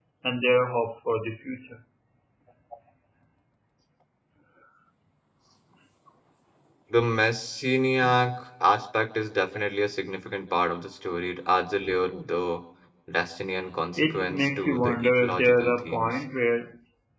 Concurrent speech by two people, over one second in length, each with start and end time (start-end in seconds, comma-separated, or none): 14.0-16.2